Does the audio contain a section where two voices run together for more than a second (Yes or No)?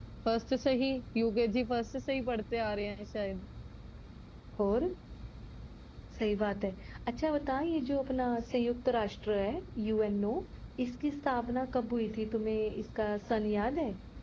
No